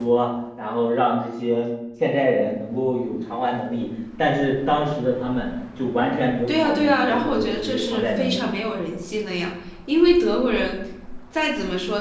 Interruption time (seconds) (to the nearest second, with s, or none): 6 s